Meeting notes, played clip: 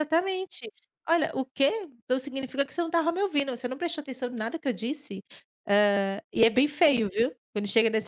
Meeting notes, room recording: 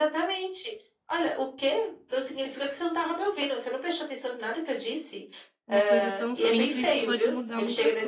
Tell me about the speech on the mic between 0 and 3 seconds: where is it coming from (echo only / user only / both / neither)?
echo only